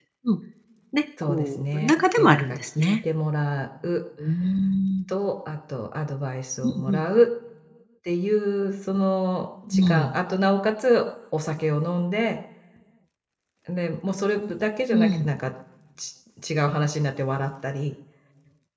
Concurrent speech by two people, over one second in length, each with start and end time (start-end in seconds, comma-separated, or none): 1.2-3.0